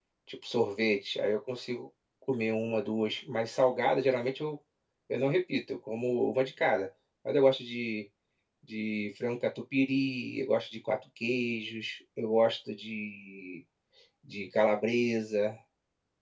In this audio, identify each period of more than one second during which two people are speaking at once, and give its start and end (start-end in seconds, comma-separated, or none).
none